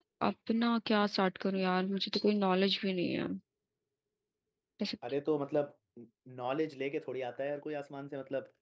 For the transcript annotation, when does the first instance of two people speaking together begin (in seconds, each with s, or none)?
none